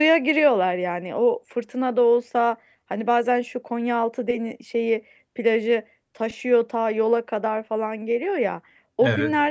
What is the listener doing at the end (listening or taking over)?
listening